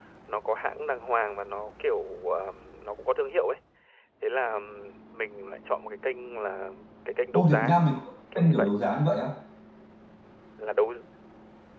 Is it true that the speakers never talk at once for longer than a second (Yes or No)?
Yes